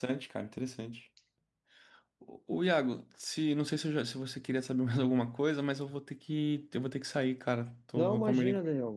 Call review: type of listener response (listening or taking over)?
taking over